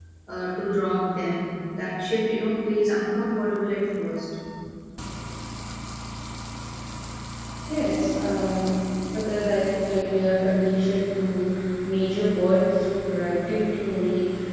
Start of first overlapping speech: none

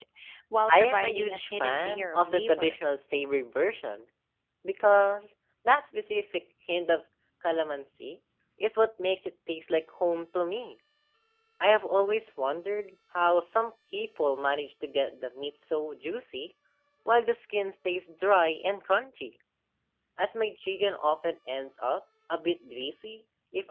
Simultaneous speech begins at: 0.8 s

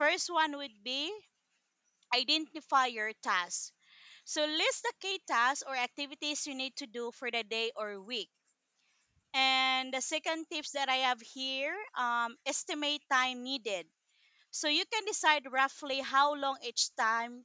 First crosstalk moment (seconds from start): none

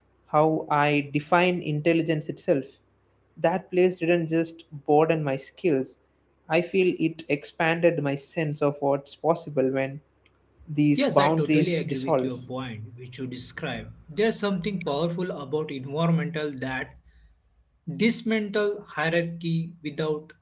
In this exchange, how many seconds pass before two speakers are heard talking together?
11.0 s

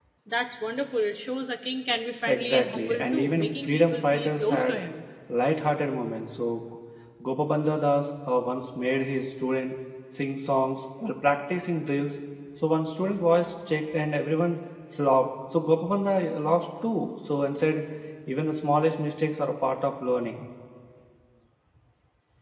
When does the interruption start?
2.3 s

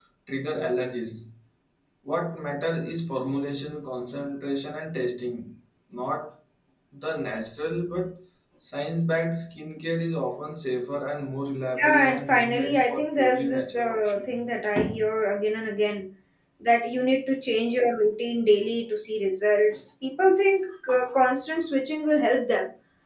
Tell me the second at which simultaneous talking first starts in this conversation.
11.8 s

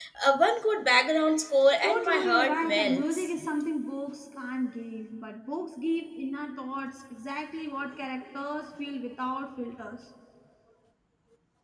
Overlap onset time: 1.8 s

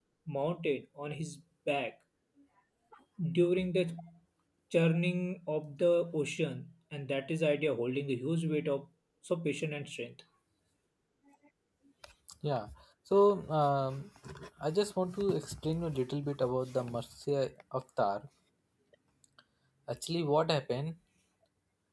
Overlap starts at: none

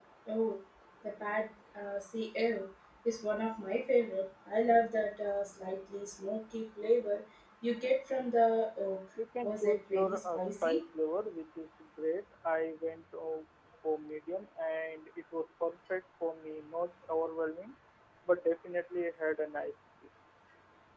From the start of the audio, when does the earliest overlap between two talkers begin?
9.4 s

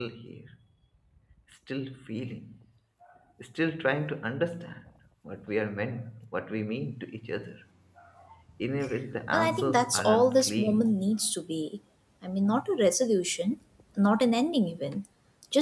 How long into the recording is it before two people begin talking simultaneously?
9.3 s

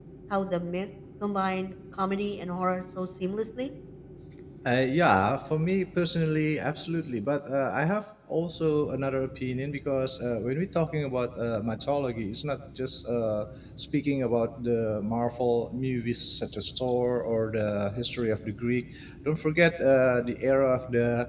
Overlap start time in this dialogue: none

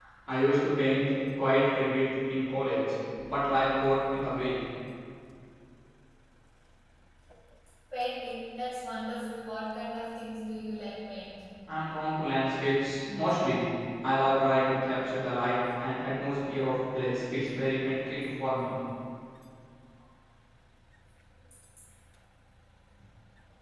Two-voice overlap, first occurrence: none

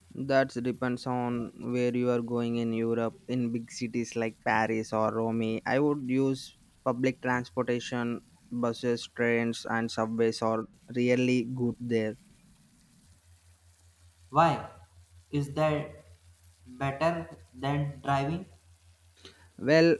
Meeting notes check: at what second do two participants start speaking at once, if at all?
none

